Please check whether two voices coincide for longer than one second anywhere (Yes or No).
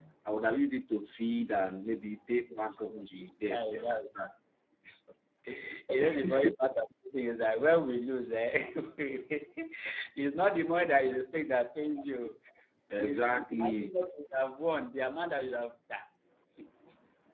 Yes